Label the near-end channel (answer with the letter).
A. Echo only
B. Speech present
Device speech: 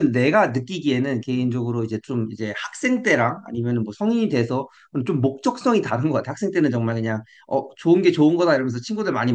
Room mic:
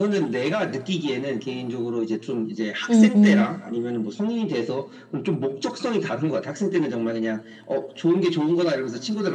B